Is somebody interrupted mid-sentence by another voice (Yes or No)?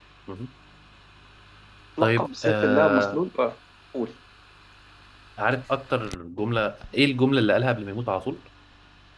Yes